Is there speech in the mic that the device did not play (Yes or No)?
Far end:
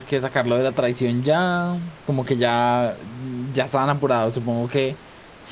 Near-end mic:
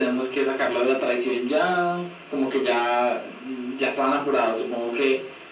No